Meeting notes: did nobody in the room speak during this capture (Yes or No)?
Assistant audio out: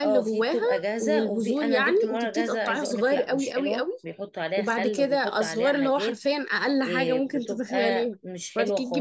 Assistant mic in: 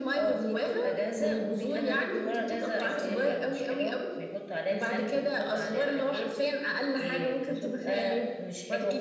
No